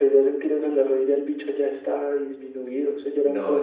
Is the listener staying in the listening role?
No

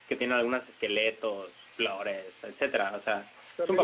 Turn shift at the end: Yes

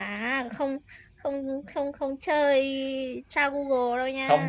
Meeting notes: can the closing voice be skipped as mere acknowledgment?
No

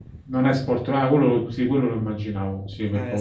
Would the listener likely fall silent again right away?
No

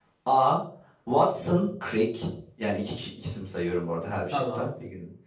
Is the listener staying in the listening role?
Yes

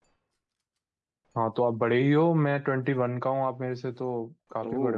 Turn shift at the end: Yes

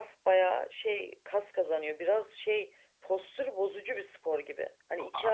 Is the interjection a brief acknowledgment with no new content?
Yes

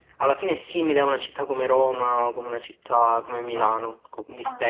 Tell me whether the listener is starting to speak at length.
Yes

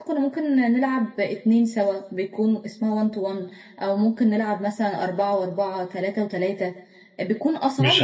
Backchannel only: No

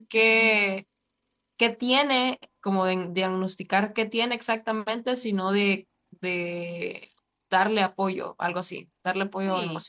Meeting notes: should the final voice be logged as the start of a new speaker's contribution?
Yes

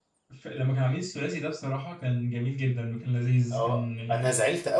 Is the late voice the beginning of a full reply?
Yes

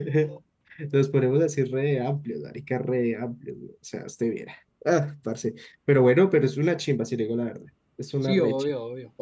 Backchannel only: No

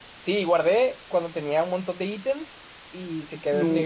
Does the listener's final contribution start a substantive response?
No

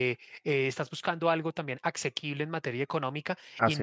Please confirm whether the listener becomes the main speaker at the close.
No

